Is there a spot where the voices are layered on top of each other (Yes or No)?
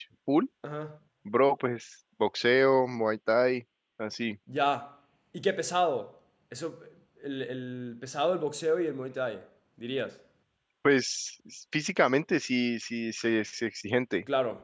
No